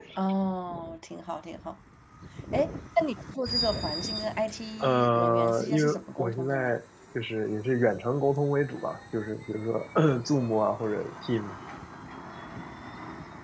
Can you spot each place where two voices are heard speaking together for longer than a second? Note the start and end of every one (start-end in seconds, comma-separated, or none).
4.8-6.8